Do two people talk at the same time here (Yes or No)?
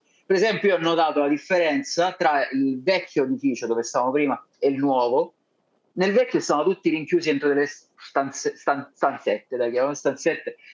No